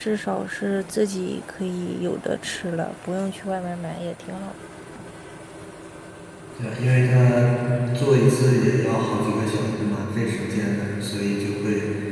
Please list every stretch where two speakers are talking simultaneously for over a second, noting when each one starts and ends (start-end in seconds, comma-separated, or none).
none